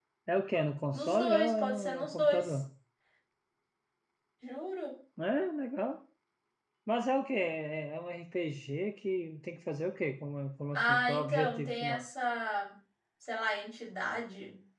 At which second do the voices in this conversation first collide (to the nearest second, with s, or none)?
1 s